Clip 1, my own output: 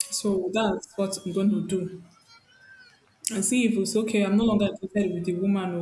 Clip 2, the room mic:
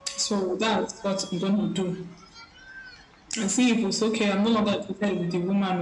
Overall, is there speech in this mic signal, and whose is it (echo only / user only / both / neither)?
echo only